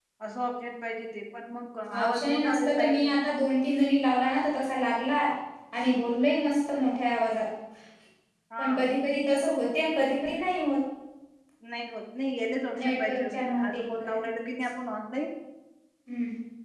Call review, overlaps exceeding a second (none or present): present